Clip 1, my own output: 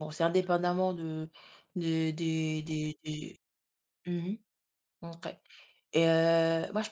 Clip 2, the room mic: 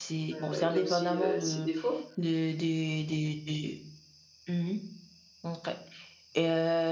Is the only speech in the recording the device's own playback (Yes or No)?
No